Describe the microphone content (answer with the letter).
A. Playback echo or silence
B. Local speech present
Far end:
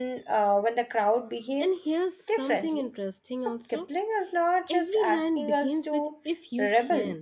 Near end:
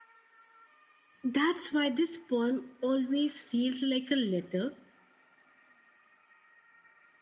B